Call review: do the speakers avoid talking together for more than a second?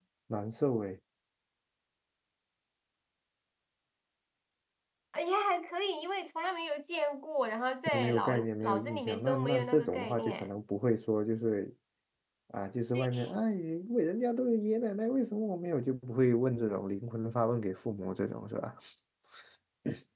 No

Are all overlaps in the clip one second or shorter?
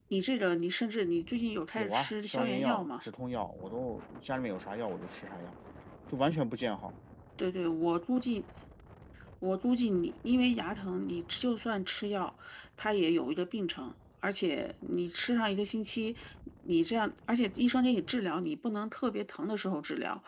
No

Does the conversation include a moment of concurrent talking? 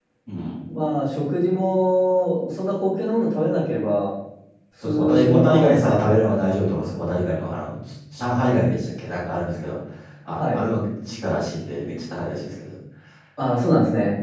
Yes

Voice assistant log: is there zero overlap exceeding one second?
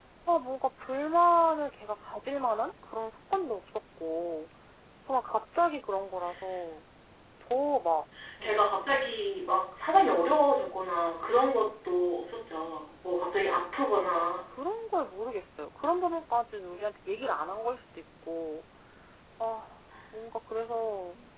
Yes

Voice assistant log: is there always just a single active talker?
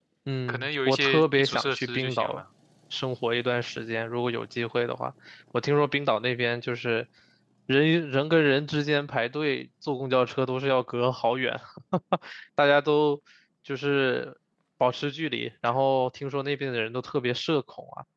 No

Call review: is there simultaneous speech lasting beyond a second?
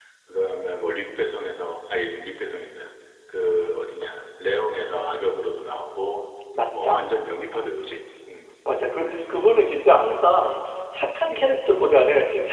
No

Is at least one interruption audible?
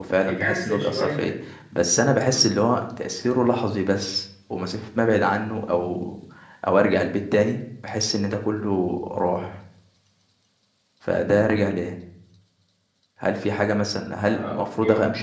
Yes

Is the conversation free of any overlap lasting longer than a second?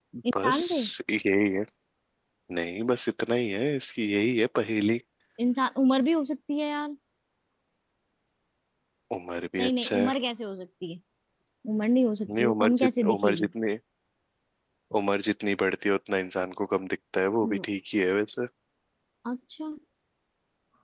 No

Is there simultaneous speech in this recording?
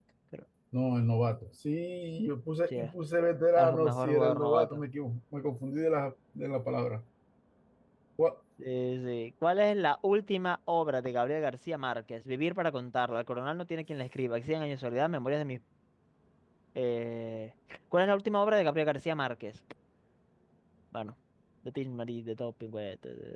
Yes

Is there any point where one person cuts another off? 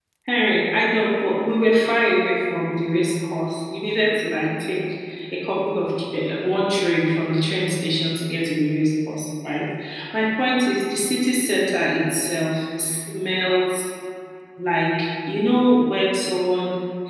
No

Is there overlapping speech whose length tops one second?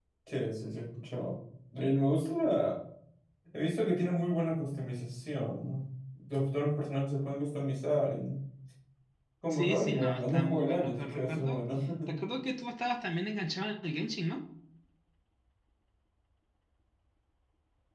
Yes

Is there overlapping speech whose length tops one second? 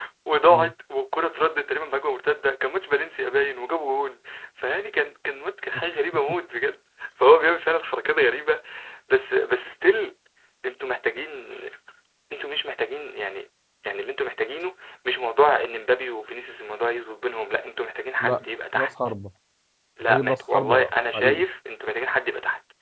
Yes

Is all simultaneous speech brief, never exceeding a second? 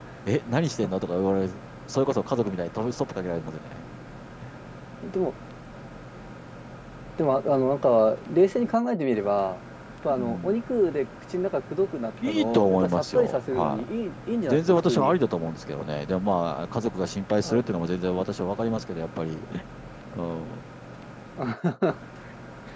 No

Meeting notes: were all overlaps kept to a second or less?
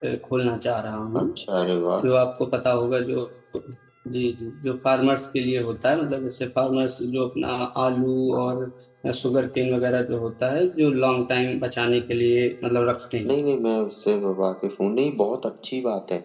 Yes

